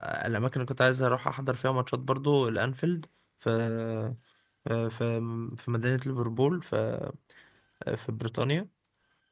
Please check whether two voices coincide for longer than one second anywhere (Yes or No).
No